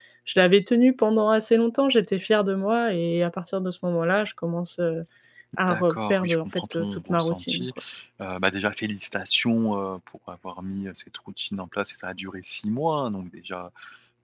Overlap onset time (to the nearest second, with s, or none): 6 s